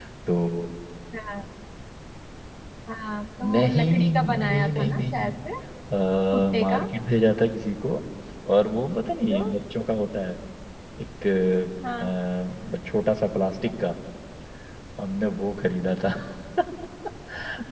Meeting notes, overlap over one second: present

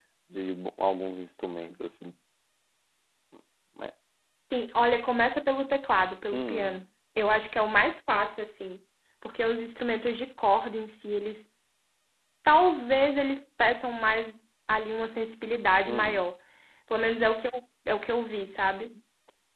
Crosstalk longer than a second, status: none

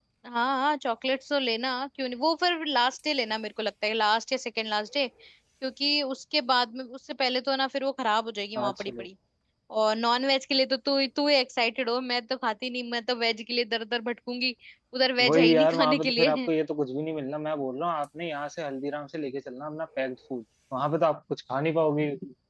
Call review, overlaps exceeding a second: present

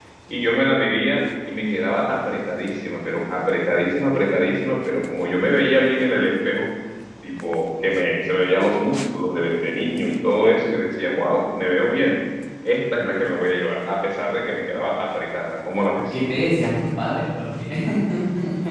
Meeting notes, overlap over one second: none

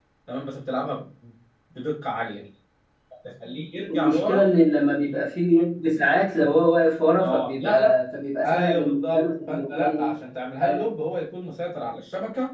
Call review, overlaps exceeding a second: present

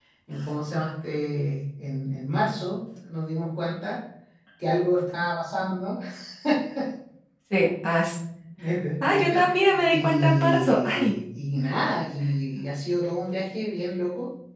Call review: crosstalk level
present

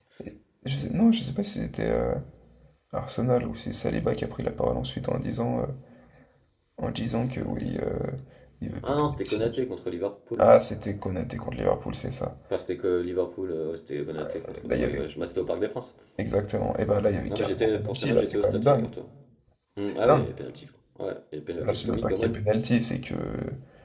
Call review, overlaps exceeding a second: present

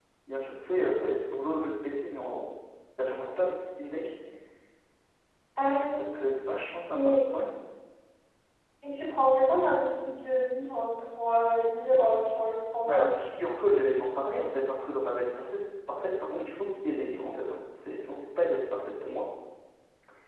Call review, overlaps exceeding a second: none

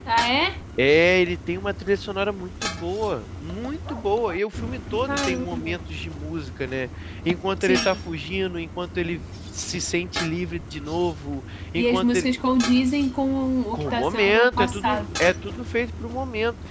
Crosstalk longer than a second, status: present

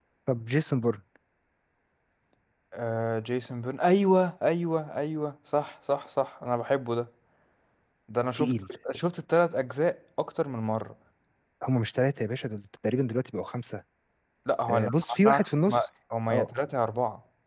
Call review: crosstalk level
present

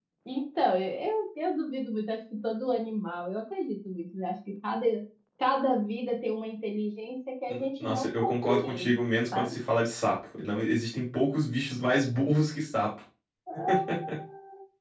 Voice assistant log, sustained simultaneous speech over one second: present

